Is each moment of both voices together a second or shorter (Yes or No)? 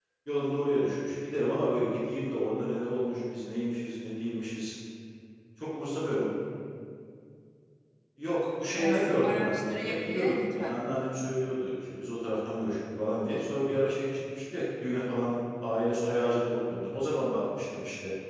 No